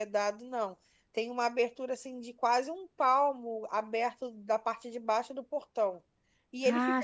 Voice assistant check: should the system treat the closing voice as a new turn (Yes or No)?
No